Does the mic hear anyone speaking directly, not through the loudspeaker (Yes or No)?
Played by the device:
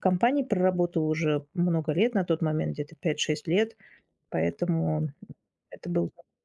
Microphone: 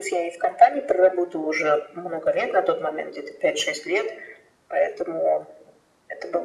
No